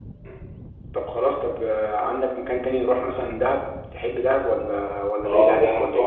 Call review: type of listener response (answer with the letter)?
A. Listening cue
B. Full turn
B